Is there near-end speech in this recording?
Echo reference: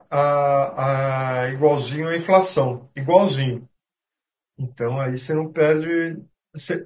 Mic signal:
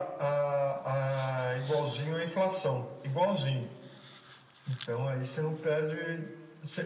No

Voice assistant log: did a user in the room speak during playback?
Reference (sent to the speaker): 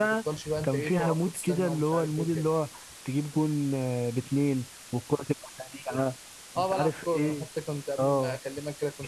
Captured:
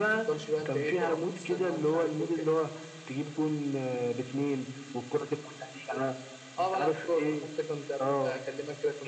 No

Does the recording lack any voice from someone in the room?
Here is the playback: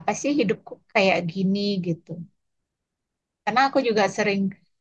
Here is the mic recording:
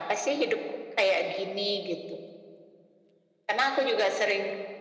Yes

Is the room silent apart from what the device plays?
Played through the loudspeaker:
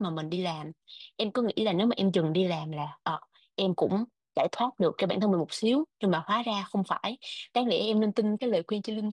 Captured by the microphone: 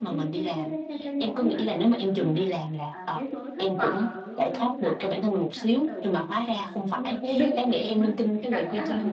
No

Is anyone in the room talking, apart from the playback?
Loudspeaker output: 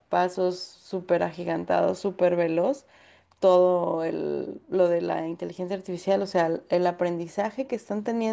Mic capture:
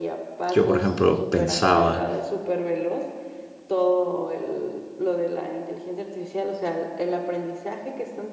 Yes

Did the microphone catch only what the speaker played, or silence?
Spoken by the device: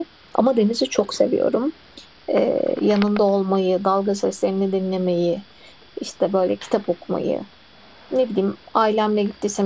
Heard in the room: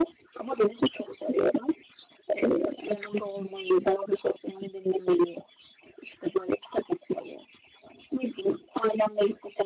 Yes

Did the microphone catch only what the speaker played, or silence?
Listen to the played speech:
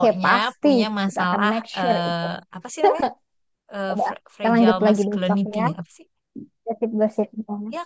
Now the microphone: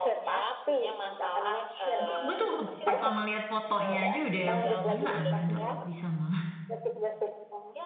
No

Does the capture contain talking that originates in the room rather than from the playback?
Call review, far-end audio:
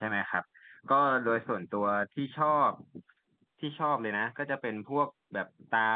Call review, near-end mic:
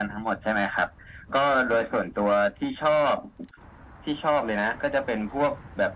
No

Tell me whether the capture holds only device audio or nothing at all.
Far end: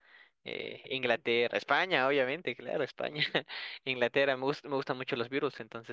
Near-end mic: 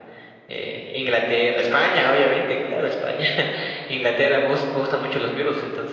Yes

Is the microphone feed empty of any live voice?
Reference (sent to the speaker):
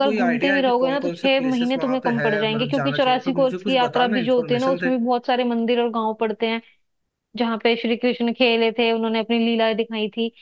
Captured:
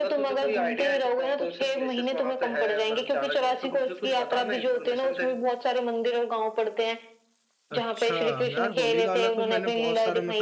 No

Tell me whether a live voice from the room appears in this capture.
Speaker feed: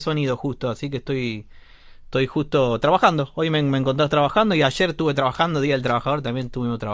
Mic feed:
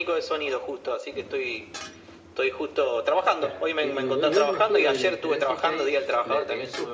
Yes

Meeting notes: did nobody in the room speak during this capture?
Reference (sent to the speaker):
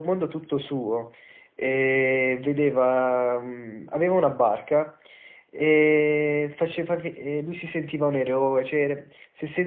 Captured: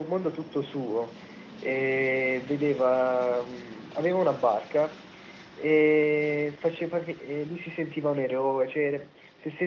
Yes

